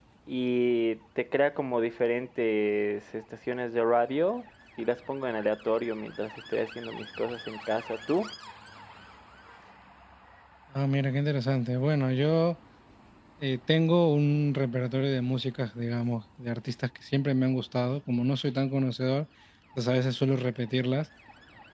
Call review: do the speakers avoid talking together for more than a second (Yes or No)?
Yes